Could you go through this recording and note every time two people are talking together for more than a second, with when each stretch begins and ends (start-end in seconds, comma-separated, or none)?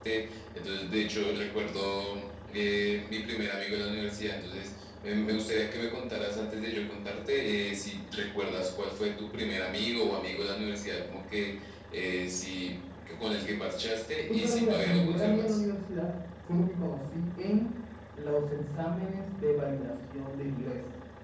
14.3-15.6